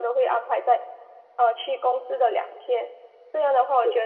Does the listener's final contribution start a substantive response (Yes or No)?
No